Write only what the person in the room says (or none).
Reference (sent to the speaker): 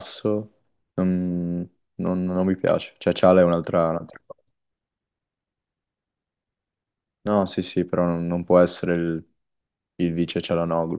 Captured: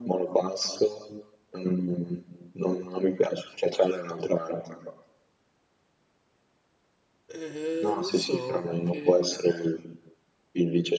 Eh, non so, perché